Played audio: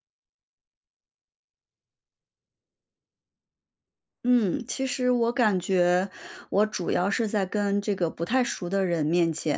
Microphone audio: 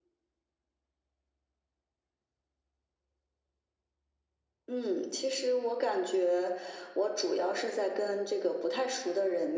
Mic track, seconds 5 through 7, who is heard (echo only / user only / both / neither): echo only